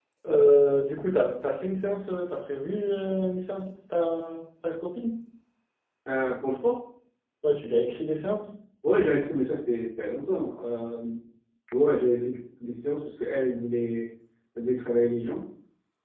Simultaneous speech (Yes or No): No